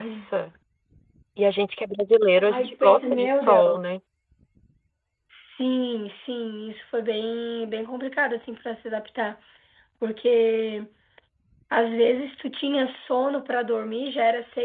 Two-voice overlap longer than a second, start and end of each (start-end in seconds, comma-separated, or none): 2.5-4.0